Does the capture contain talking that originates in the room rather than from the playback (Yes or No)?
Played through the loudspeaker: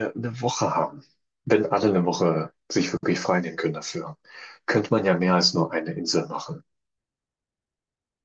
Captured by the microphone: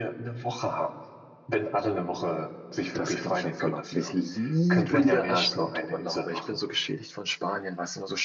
Yes